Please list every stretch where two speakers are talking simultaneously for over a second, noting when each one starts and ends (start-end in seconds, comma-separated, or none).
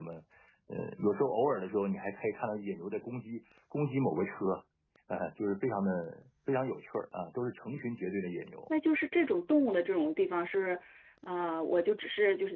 none